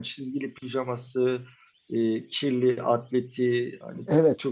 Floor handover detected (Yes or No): No